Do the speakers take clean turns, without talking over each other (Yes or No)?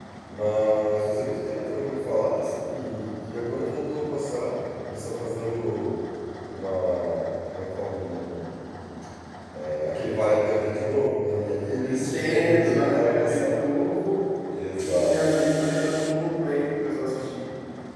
No